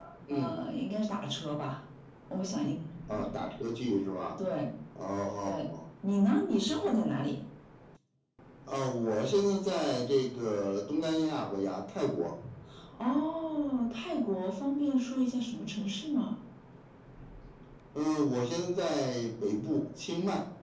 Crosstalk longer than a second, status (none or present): none